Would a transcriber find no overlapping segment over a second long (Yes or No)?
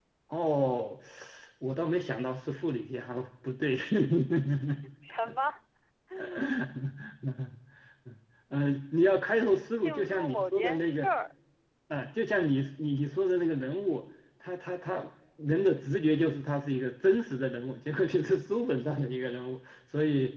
No